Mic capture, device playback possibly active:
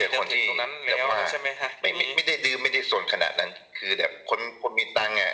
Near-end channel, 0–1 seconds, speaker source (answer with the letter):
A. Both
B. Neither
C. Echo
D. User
C